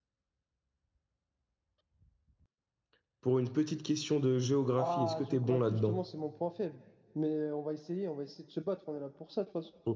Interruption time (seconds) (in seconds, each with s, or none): 4.8 s